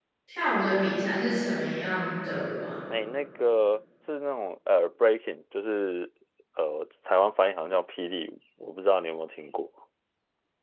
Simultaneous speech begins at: none

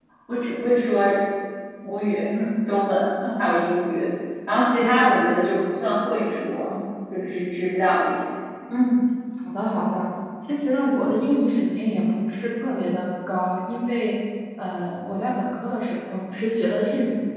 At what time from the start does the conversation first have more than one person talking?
none

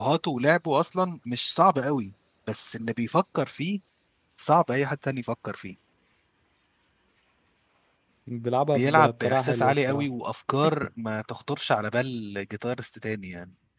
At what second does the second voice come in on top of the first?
8.7 s

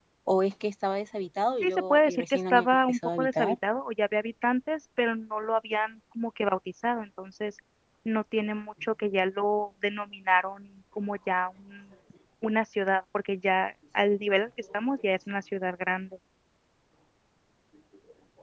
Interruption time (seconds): 1.6 s

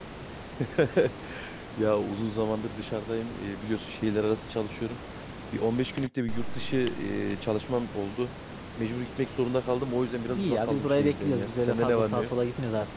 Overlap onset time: 10.3 s

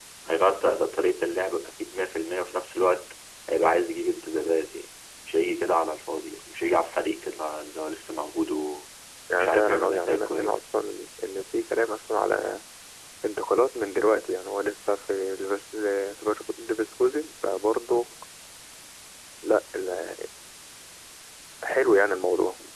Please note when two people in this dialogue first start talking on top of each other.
9.3 s

